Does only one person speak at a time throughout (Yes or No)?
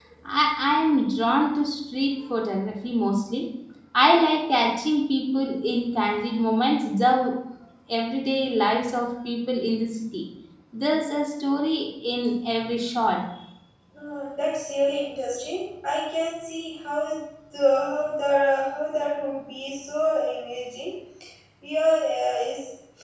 Yes